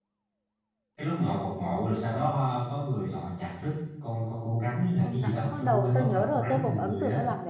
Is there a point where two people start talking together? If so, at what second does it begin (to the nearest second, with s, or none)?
5 s